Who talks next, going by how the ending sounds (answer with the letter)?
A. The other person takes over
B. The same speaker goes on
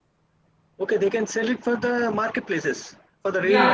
A